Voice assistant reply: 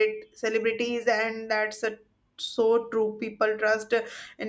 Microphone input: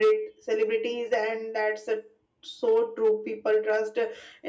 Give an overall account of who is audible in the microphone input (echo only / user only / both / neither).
echo only